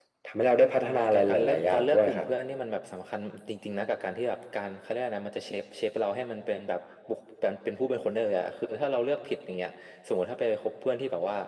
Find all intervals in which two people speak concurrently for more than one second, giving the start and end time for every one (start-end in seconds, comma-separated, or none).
0.8-2.3